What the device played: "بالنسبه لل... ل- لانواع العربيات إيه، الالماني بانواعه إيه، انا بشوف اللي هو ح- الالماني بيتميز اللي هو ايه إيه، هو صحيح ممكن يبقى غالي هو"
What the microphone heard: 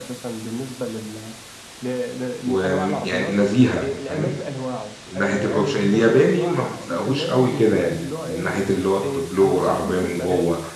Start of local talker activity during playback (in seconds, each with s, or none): 2.4 s